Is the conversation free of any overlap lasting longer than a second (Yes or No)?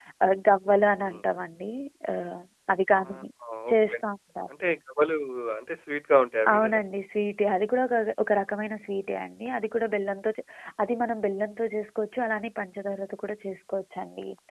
Yes